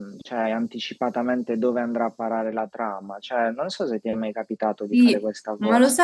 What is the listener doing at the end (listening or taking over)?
taking over